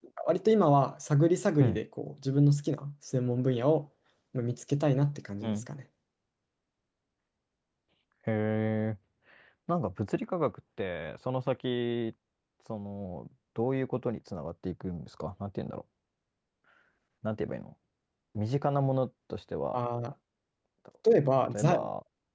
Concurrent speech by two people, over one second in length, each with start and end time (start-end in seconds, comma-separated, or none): none